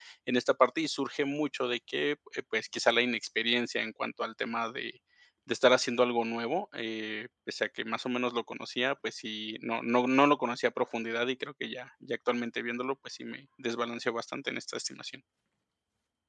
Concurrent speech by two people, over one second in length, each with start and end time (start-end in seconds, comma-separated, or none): none